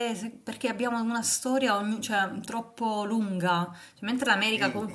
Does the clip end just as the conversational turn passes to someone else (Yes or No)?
No